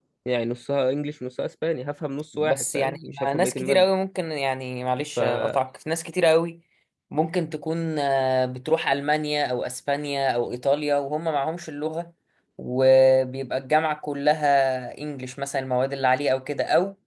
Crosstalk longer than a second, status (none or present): present